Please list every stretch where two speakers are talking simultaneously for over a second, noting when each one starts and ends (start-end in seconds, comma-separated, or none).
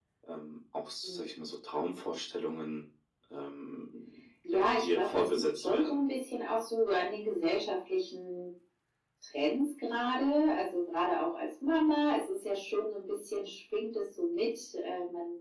4.5-6.1